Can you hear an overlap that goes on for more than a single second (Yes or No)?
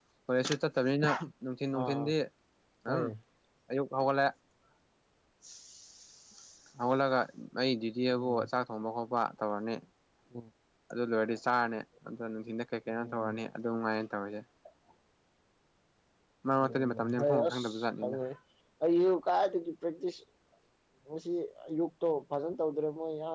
Yes